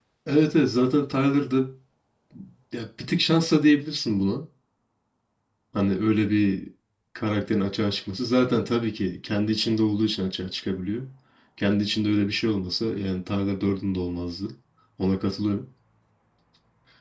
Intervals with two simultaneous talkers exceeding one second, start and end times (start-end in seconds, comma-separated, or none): none